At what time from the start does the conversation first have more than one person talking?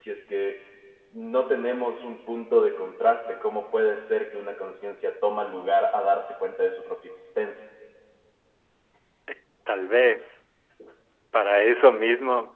none

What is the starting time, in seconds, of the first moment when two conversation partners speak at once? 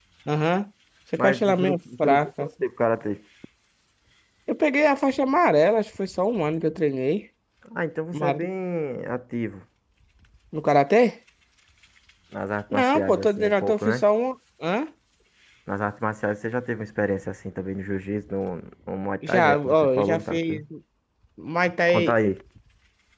1.2 s

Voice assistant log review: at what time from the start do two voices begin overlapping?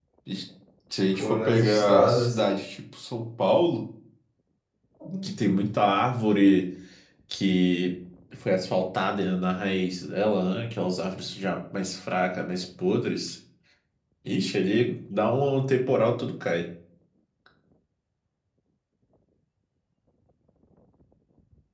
1.1 s

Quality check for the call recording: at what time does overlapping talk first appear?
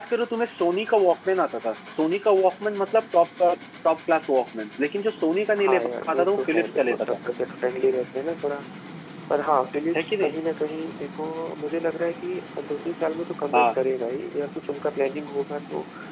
5.6 s

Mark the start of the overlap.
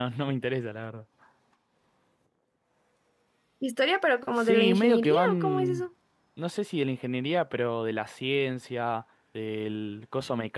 4.4 s

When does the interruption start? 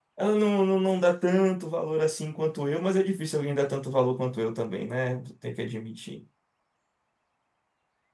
none

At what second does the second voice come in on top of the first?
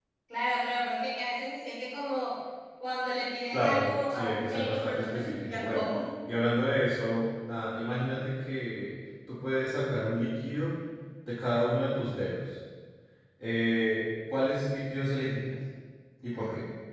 3.5 s

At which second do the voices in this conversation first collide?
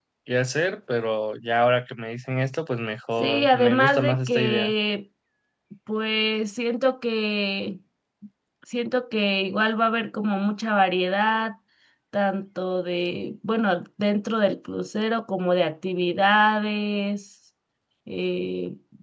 3.2 s

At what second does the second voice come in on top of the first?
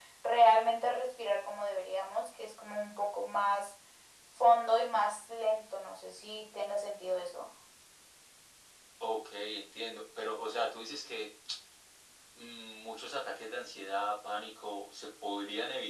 none

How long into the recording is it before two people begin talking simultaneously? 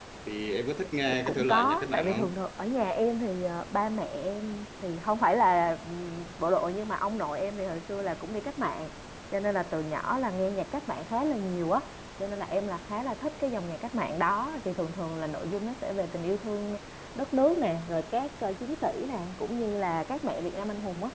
1.1 s

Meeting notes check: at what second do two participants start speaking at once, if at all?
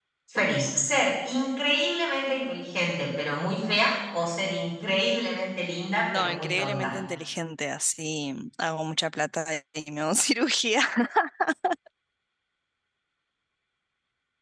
5.6 s

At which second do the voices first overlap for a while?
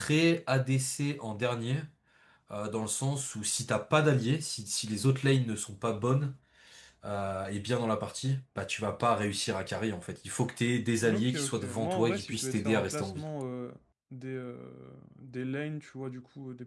11.0 s

